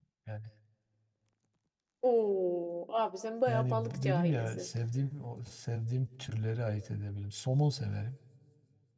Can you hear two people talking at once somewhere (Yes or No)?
Yes